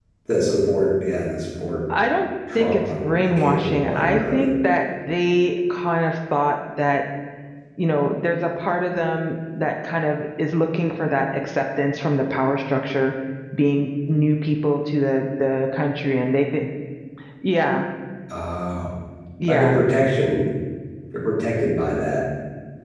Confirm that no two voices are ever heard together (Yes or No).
No